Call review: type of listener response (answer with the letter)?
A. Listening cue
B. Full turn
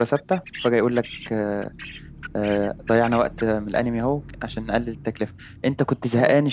A